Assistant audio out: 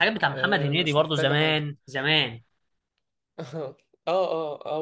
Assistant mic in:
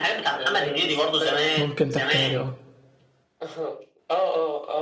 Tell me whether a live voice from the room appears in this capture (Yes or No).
Yes